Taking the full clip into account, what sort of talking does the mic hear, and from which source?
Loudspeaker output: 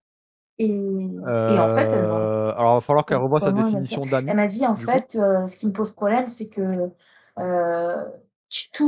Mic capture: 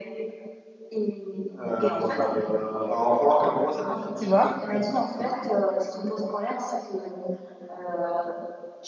both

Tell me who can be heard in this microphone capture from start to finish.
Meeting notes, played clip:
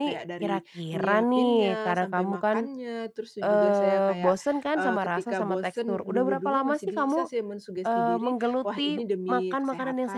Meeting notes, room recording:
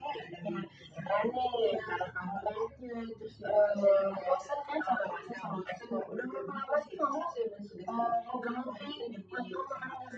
echo only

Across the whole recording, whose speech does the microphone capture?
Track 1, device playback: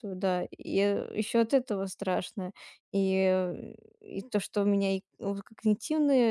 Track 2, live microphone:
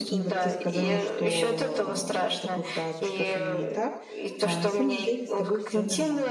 both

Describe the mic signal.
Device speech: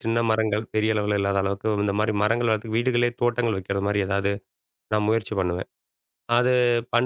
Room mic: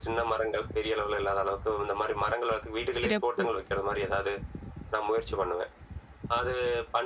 both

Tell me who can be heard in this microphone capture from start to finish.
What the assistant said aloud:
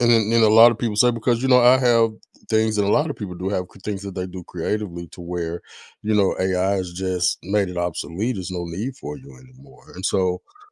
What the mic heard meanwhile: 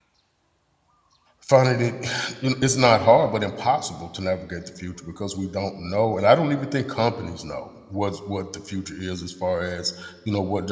user only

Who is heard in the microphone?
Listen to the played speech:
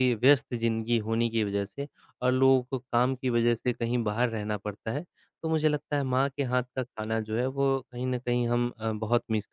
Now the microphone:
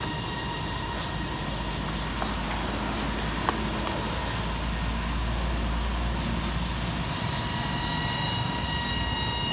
neither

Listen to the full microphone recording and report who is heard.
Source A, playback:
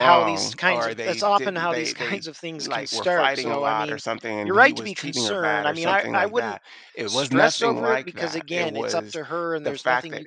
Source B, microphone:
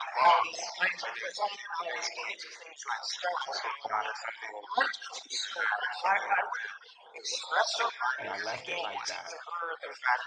both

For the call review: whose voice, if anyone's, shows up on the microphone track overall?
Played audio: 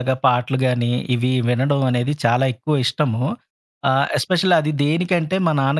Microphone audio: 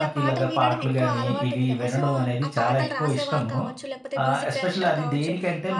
both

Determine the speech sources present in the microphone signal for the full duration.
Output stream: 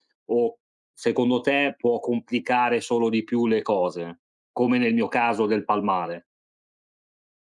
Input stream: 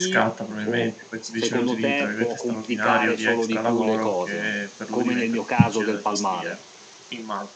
both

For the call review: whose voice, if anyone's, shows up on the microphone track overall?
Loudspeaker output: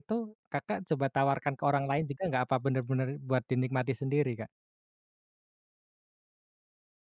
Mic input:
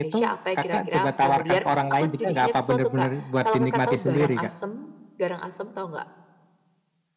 both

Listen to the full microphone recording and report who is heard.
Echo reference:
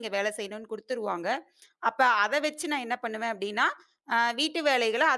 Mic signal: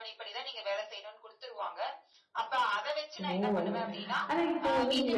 both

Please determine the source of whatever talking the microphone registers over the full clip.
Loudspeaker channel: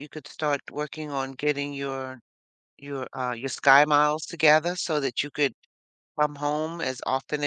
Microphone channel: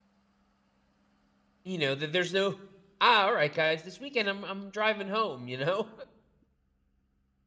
user only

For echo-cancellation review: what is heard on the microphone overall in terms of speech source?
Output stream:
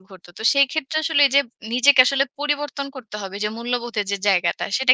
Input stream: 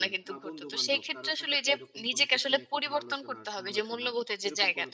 both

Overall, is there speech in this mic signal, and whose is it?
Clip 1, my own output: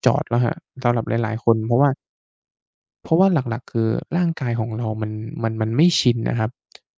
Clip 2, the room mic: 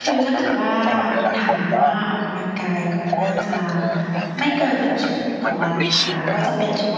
both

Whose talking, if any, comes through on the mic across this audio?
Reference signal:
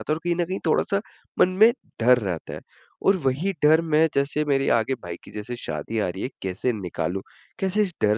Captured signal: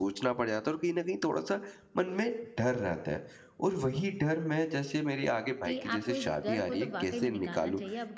both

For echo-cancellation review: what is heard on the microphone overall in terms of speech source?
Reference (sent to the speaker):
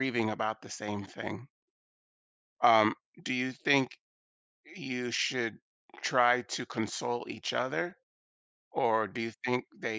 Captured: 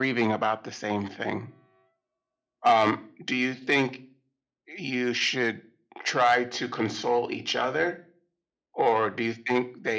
echo only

